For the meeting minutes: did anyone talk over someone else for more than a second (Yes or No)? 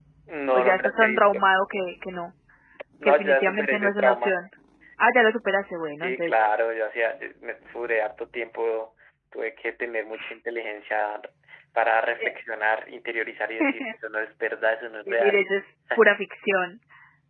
Yes